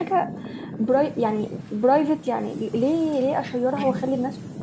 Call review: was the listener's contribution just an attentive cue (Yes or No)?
Yes